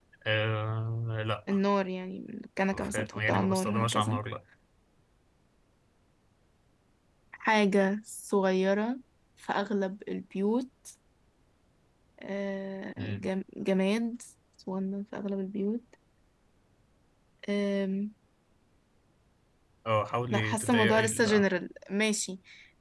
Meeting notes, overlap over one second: present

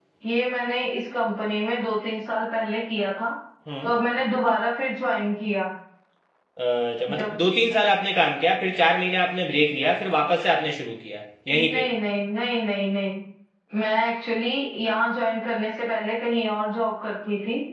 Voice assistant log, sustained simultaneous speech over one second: none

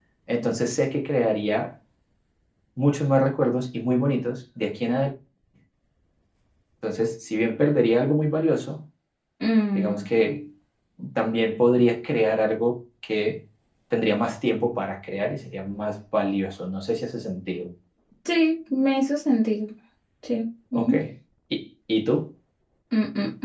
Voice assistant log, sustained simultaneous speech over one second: none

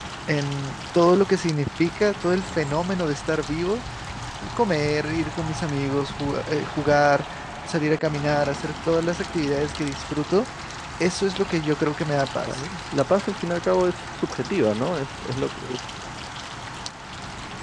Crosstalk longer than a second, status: none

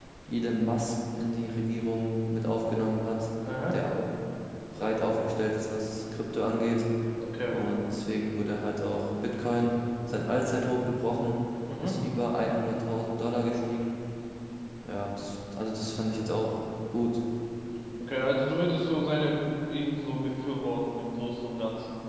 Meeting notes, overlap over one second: none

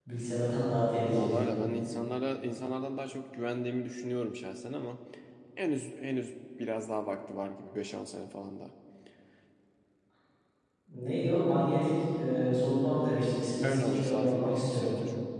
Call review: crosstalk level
present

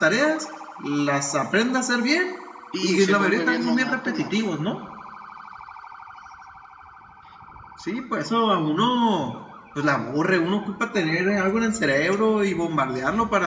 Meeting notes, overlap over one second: present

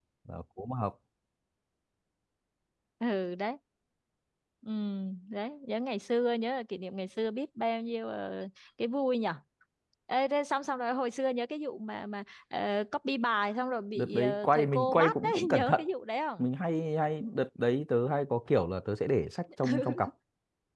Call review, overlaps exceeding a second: present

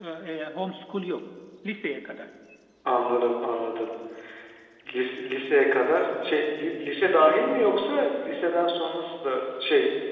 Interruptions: none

